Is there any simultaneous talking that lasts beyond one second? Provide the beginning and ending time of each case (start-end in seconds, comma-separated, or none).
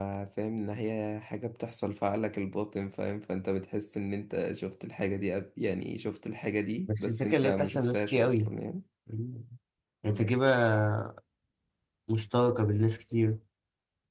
6.9-8.5